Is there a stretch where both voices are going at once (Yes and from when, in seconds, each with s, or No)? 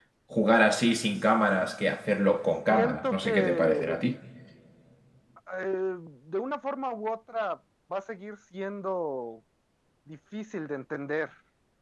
Yes, from 2.7 s